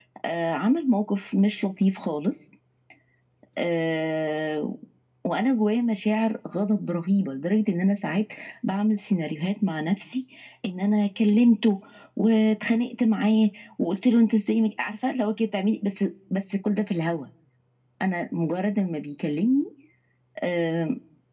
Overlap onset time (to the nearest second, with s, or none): none